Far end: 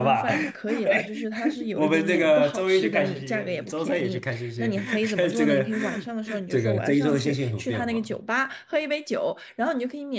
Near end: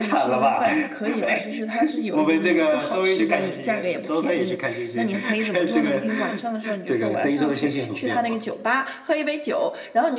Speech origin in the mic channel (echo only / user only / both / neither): echo only